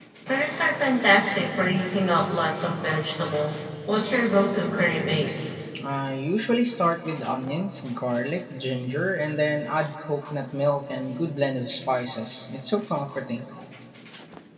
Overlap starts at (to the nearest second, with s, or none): none